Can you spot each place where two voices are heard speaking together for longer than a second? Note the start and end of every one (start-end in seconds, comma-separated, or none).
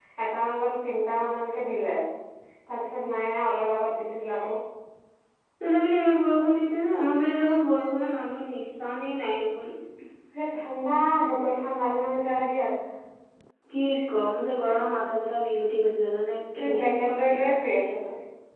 16.6-17.9